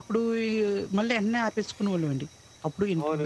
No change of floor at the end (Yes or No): No